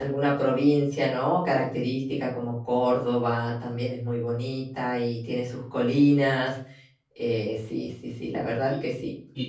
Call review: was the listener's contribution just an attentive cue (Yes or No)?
No